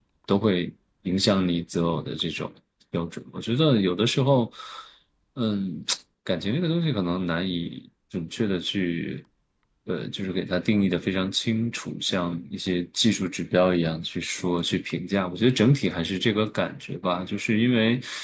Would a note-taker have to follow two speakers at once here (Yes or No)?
No